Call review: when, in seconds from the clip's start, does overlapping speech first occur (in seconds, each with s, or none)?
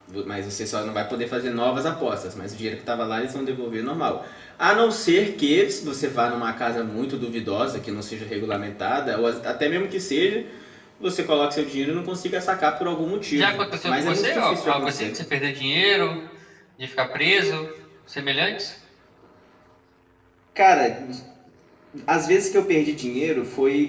13.3 s